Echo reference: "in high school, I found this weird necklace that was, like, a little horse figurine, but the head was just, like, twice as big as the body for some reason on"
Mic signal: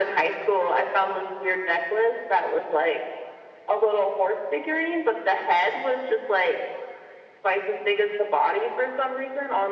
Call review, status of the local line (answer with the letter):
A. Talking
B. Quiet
B